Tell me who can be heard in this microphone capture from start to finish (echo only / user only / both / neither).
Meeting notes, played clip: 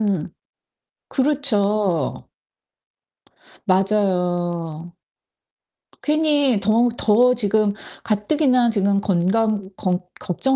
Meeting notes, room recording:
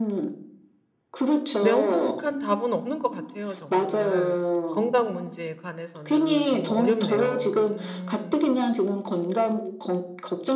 both